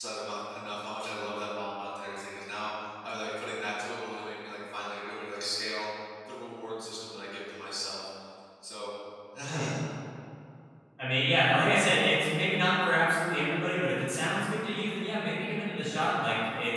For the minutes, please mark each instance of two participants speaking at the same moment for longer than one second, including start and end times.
none

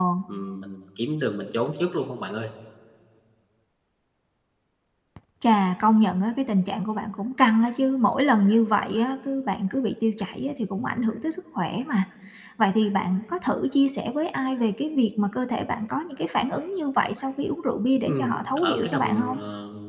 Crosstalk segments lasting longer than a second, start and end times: 18.0-19.3

